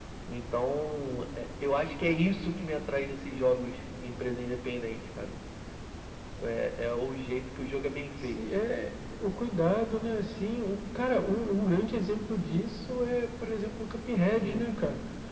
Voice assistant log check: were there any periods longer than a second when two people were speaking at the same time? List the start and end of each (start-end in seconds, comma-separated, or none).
none